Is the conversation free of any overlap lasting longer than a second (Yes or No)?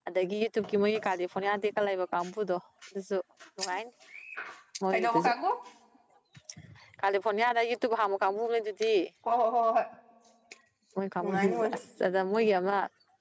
Yes